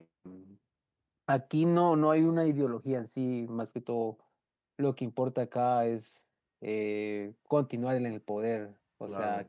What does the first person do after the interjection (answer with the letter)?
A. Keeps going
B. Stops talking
A